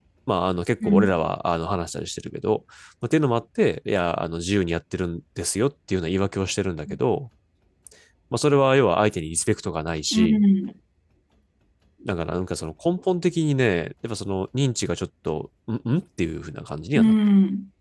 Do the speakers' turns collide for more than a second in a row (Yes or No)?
No